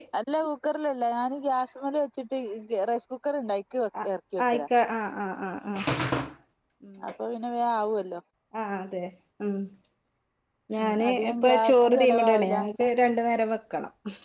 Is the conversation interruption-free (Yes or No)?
No